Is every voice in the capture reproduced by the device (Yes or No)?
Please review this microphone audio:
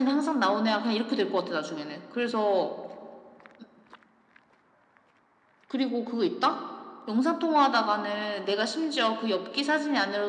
Yes